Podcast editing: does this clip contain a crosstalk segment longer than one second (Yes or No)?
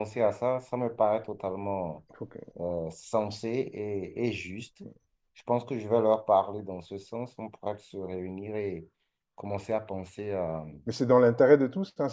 No